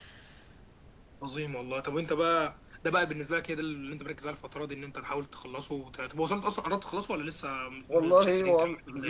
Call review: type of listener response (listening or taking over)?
taking over